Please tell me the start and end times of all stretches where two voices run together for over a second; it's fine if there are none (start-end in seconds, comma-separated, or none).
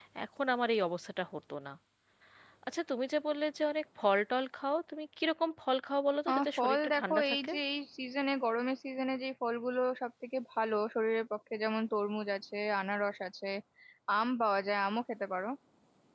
6.3-7.5